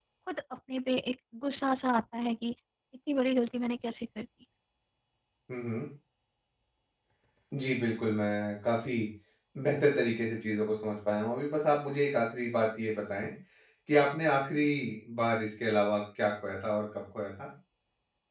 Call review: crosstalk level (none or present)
none